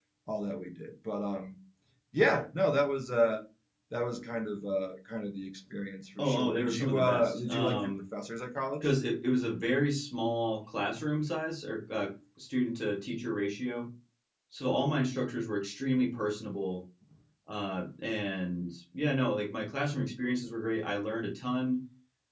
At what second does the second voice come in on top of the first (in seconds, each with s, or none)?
6.2 s